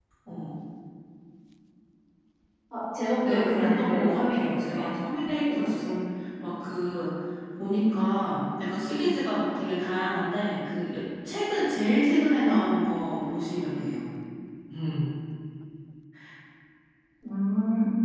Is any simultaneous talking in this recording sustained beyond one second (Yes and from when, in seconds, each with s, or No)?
Yes, from 3.2 s